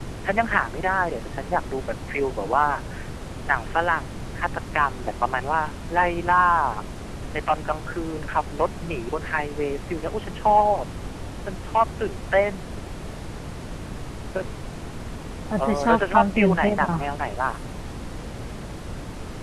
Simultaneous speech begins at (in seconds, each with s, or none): 15.6 s